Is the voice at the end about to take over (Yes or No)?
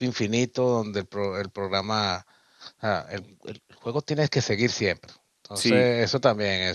No